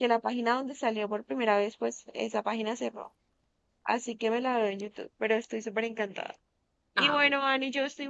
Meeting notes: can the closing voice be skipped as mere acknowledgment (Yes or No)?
Yes